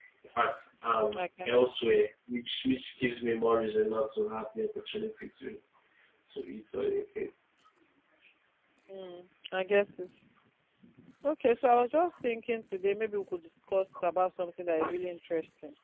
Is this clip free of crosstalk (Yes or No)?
Yes